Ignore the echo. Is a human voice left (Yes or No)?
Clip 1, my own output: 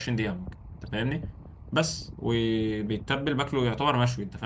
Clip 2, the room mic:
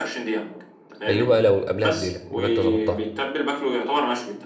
Yes